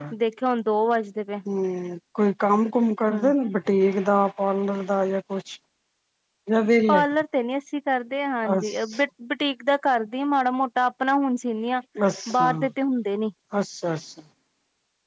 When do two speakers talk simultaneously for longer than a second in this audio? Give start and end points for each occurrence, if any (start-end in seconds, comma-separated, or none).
none